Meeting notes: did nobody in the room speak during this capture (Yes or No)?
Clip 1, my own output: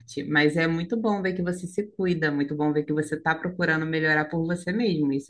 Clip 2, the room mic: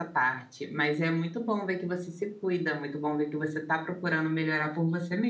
Yes